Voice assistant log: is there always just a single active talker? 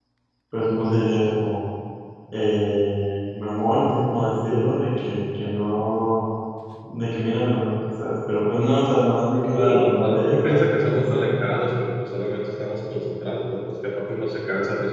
No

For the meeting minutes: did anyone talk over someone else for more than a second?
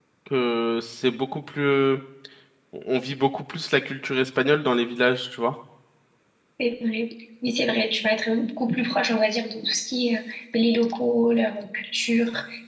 No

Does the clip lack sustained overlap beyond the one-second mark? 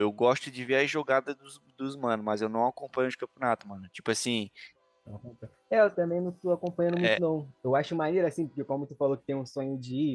Yes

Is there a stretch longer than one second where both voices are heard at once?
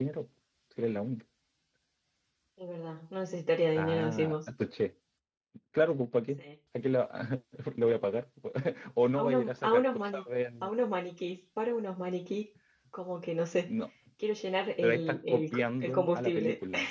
Yes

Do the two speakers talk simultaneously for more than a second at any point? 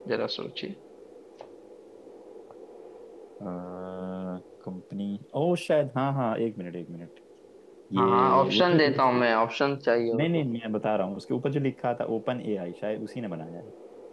Yes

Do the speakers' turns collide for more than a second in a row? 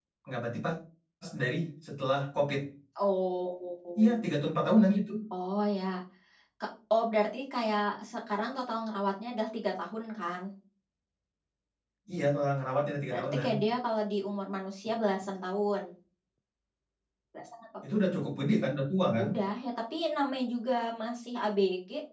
No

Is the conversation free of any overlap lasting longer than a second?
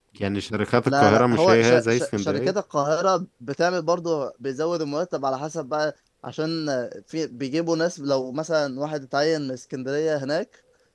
No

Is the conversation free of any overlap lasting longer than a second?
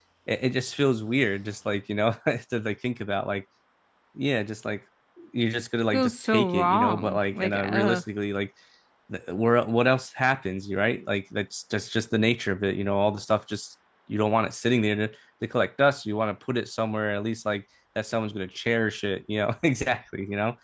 No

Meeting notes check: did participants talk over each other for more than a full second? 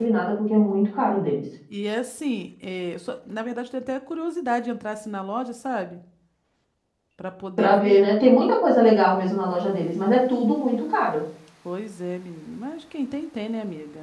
No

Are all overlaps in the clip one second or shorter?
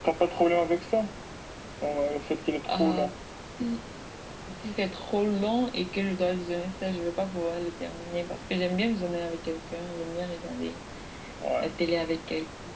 Yes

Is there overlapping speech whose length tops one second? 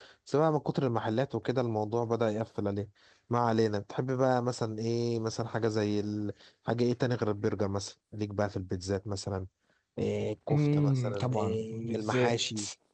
Yes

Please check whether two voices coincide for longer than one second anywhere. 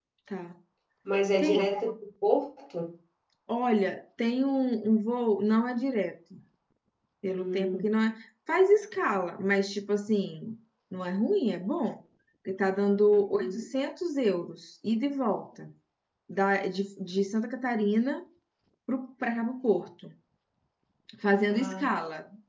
No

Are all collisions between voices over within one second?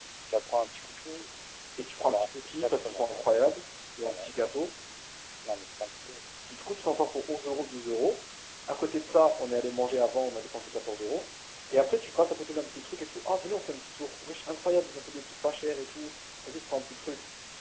No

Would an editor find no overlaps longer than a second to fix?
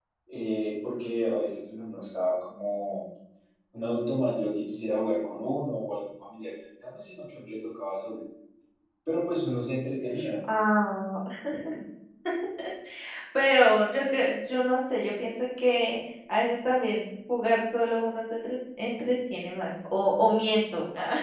Yes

